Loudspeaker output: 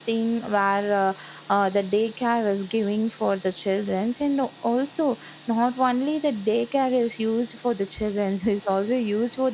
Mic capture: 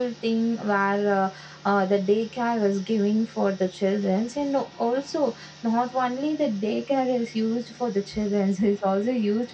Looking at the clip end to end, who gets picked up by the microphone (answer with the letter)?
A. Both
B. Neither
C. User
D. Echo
D